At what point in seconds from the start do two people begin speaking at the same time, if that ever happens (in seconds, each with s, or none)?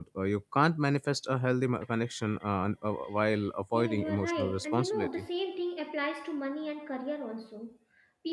3.7 s